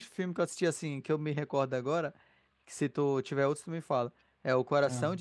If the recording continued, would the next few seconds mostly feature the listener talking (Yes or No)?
No